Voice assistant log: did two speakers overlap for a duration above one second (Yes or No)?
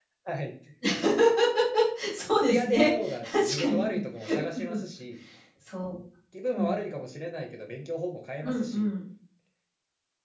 Yes